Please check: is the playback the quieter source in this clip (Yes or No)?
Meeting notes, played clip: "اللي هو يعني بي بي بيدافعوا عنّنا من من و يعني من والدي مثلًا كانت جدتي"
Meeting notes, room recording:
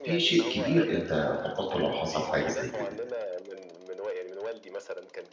Yes